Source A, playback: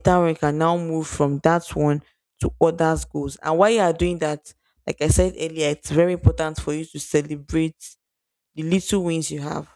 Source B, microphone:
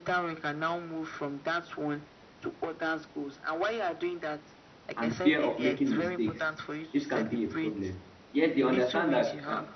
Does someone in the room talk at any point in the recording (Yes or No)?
Yes